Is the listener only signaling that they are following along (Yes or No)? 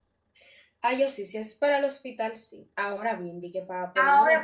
No